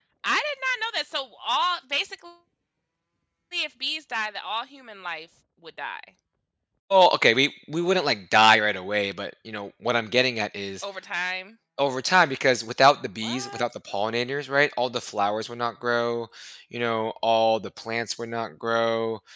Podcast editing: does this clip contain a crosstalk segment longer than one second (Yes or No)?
No